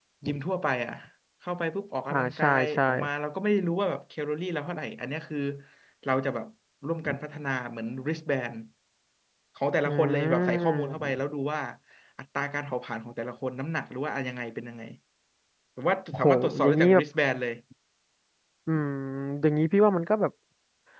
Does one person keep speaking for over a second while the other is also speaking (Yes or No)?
Yes